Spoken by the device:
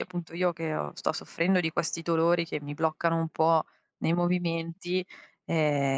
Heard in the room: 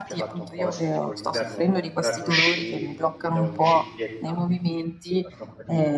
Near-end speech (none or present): present